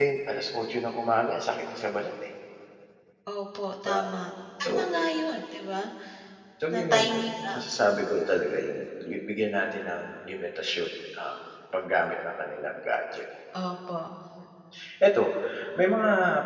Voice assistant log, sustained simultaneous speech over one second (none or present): none